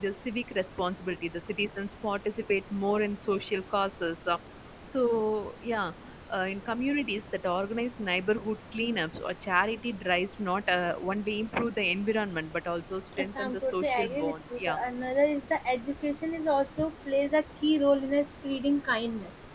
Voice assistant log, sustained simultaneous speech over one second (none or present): present